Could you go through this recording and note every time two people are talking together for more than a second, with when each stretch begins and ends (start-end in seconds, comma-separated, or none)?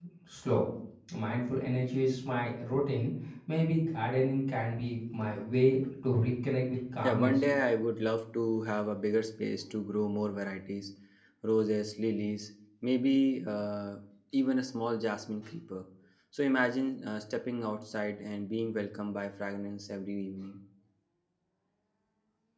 none